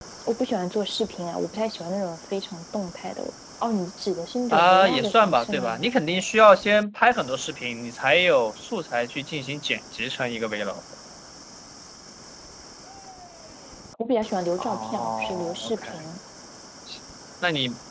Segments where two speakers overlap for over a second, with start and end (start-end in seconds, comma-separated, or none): 4.5-5.8, 14.6-16.1